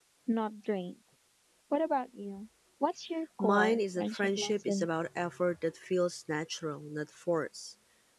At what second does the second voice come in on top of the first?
3 s

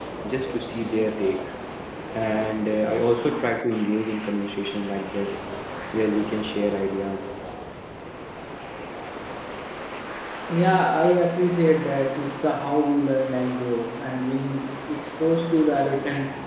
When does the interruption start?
none

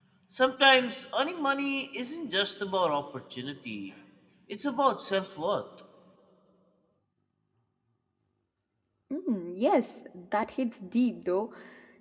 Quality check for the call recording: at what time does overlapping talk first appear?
none

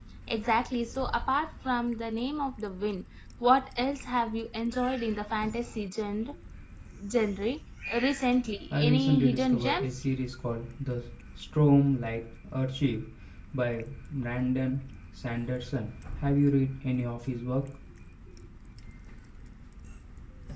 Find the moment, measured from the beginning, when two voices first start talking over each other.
9 s

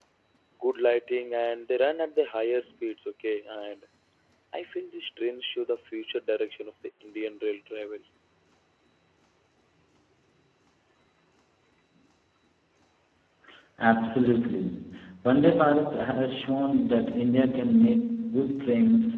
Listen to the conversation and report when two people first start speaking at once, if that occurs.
none

